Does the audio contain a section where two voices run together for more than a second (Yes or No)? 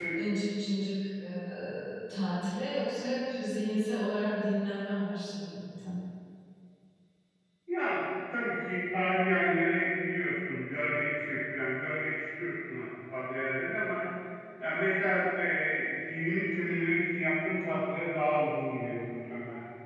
No